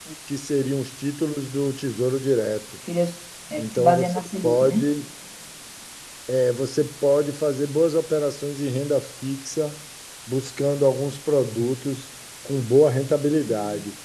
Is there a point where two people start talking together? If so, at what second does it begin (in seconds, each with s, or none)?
3.6 s